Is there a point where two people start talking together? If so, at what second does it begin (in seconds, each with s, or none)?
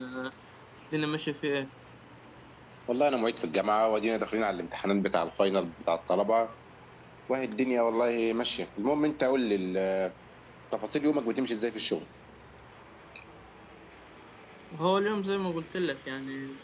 none